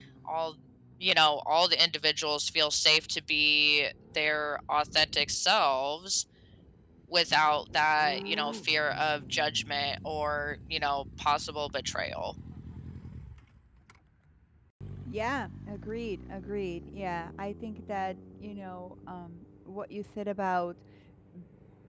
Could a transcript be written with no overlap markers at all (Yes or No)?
Yes